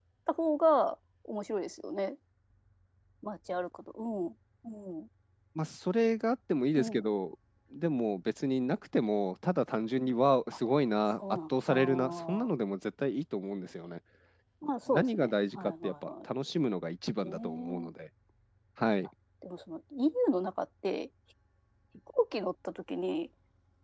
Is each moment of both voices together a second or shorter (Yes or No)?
No